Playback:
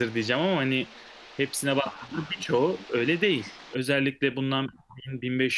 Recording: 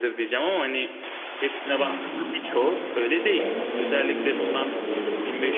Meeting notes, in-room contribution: present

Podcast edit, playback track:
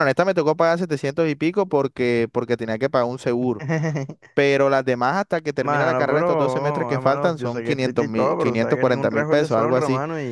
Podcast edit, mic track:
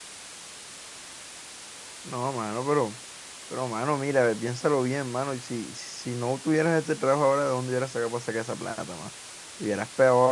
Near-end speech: present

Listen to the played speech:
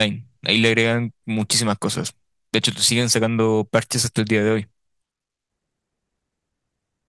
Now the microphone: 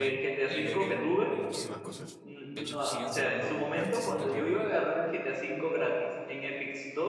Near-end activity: present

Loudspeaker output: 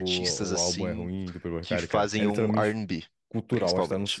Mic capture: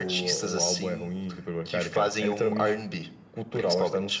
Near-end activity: none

